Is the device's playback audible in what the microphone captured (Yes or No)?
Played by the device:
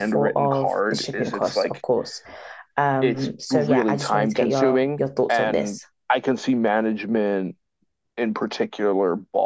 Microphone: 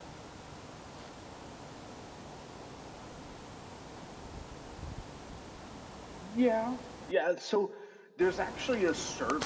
No